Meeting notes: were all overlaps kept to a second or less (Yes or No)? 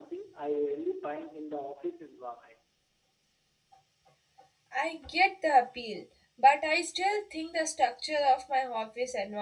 Yes